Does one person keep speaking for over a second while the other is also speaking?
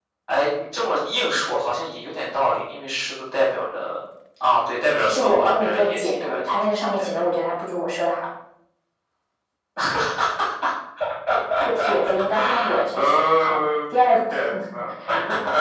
Yes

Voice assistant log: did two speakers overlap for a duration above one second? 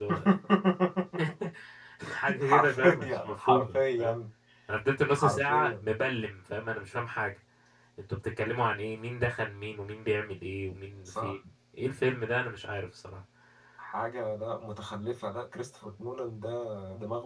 Yes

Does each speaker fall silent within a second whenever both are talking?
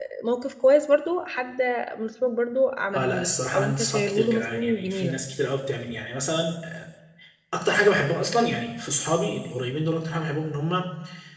No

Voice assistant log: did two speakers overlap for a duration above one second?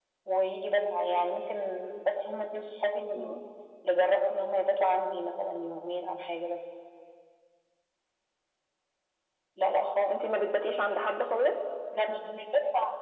No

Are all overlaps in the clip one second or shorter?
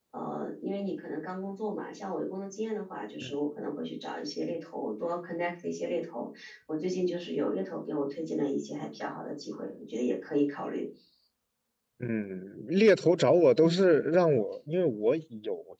Yes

